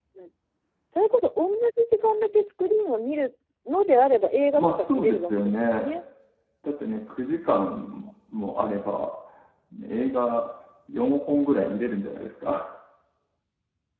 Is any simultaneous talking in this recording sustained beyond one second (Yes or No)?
Yes